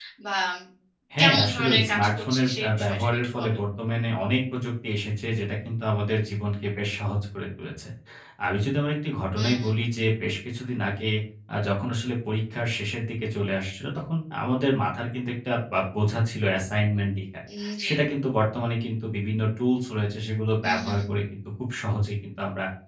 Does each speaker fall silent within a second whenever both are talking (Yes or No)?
No